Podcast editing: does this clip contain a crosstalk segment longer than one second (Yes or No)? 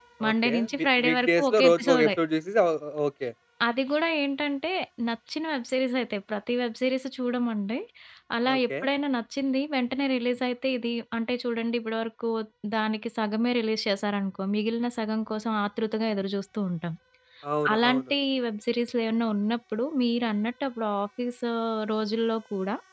Yes